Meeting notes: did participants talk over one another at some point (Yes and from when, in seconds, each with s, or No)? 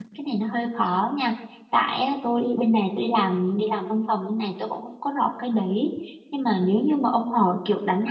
No